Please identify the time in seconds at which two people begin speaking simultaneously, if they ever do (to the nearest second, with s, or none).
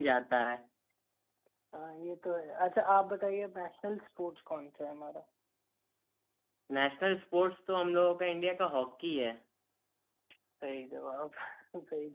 none